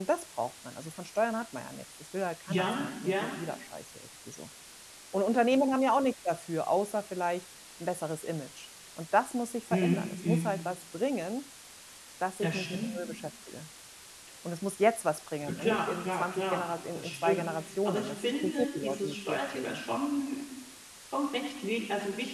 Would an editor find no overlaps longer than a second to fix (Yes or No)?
No